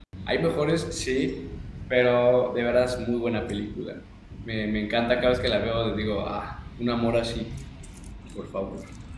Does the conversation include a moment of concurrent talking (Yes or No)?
No